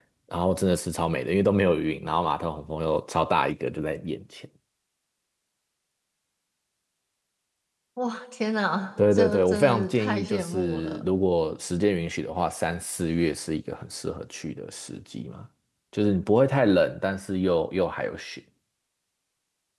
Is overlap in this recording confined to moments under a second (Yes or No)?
No